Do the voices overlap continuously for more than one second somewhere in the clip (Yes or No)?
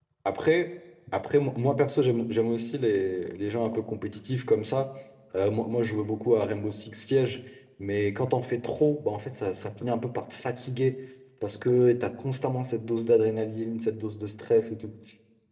No